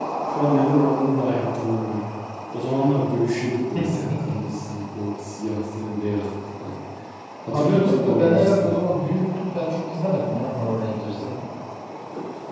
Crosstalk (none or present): present